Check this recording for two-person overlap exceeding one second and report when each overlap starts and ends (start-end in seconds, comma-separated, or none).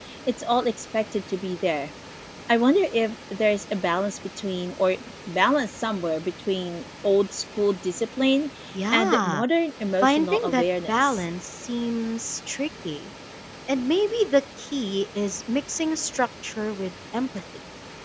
10.0-11.2